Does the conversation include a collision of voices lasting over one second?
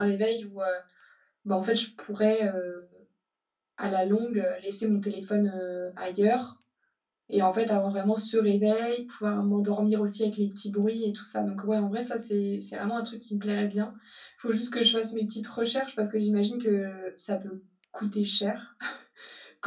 No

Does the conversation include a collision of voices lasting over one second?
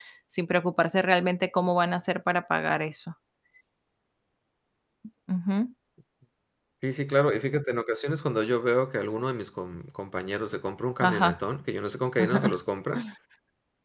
No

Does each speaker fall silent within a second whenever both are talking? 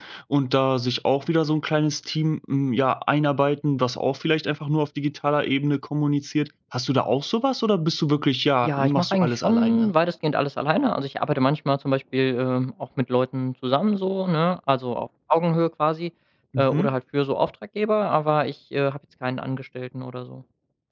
No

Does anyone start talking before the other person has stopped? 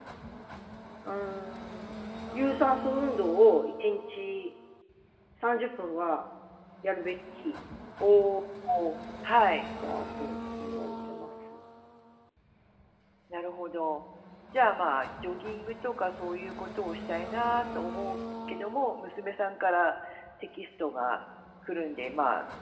No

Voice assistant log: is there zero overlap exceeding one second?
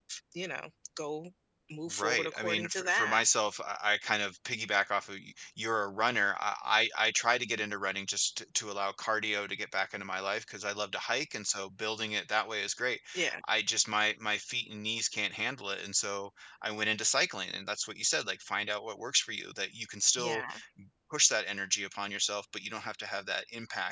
No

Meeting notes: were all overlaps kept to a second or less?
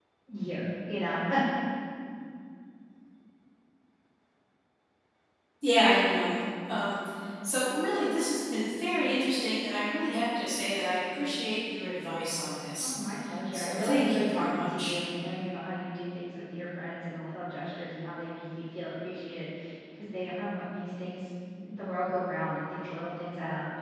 No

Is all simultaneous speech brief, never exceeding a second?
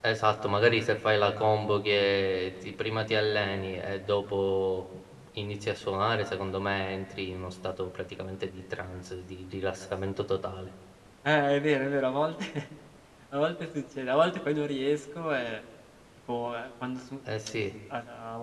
Yes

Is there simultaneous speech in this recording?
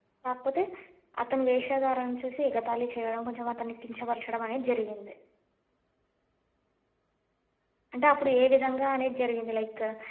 No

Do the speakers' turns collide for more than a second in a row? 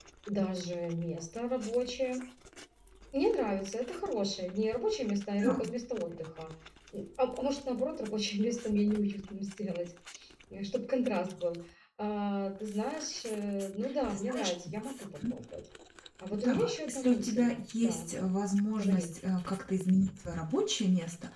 Yes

